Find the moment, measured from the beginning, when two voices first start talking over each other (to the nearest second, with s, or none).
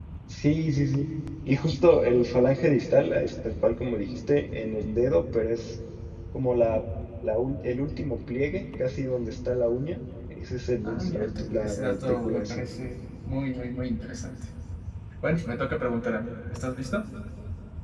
11 s